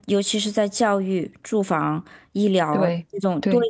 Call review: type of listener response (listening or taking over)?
listening